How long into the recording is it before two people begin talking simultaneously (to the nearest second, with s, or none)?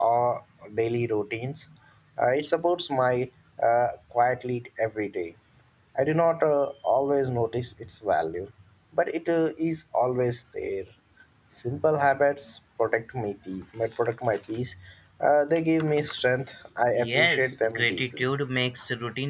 17 s